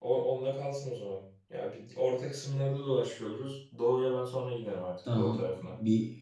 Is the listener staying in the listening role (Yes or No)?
No